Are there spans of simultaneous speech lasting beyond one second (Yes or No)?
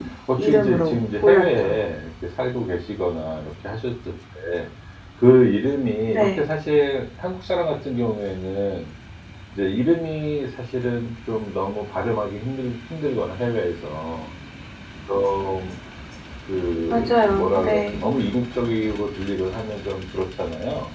Yes